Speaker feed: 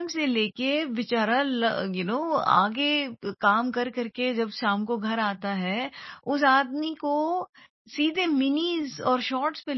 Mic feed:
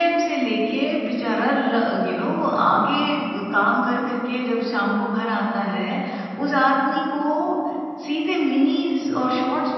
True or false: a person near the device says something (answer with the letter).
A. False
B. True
A